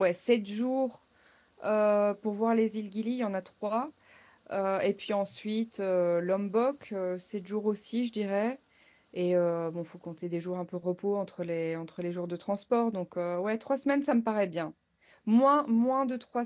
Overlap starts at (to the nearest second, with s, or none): none